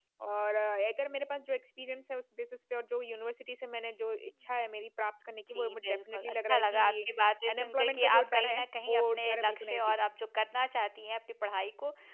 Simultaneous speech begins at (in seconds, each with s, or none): 5.5 s